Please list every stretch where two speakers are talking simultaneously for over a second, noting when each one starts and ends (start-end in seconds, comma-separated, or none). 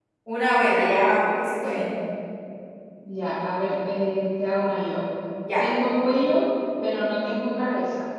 none